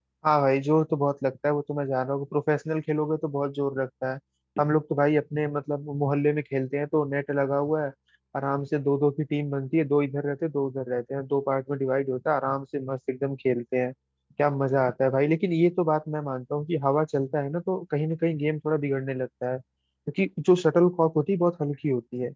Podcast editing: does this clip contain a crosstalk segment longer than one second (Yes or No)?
No